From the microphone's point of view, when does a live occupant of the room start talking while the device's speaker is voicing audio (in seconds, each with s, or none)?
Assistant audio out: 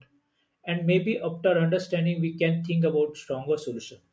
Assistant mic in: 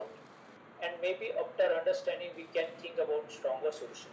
none